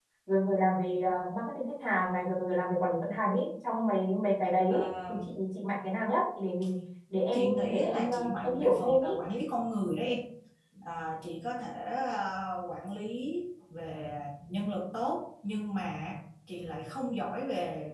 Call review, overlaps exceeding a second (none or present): present